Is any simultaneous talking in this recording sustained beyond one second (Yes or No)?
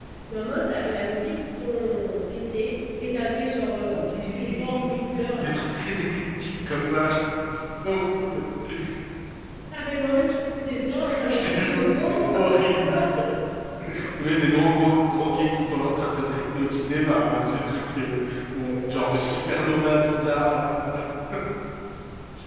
Yes